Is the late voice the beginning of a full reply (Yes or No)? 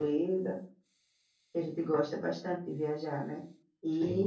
No